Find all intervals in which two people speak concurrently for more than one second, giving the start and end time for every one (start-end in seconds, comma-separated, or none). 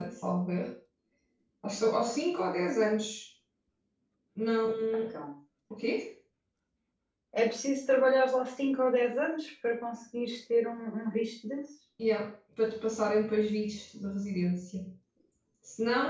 none